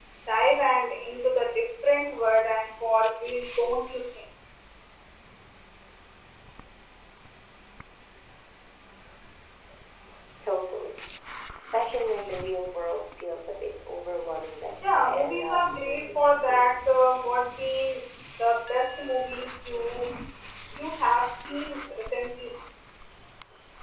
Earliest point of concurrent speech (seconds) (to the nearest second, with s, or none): 15 s